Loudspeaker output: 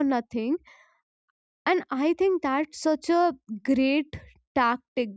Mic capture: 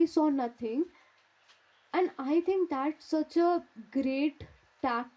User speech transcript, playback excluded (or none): none